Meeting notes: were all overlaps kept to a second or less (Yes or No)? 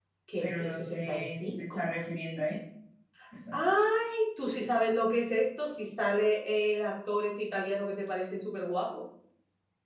No